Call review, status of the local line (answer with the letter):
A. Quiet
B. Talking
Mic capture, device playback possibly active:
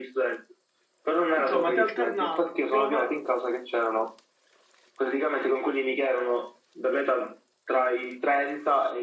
B